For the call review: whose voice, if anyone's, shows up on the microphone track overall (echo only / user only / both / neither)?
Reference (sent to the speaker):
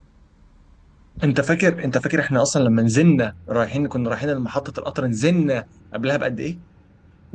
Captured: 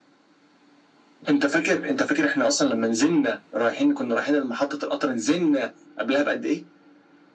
echo only